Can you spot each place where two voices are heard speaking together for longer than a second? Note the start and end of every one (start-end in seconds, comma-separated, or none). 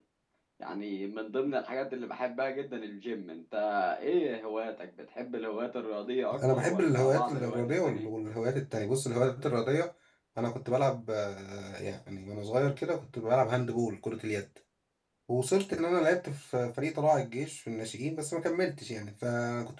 6.5-8.1